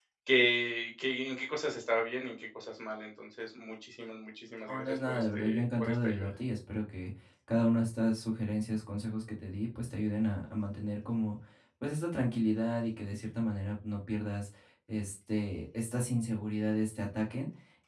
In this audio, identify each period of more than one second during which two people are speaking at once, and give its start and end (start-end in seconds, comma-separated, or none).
4.7-6.3